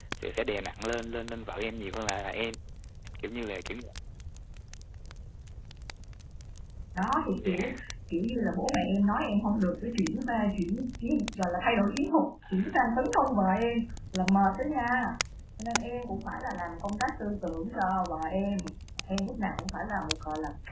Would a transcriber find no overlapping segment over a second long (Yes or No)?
Yes